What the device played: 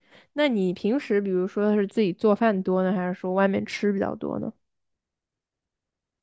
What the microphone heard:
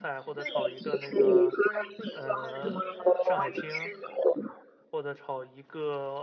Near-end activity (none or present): present